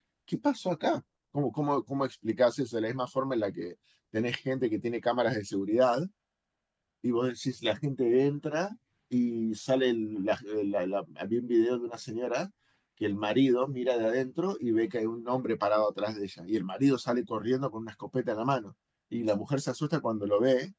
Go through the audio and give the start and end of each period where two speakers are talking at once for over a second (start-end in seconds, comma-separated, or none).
none